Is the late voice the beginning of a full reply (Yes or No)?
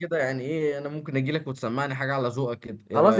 Yes